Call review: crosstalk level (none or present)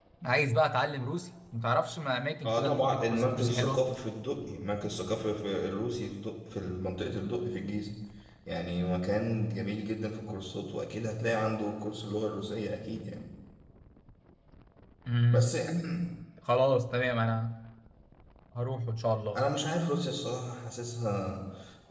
present